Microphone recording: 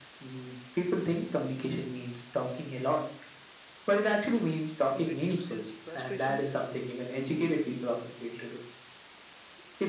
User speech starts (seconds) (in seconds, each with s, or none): 4.9 s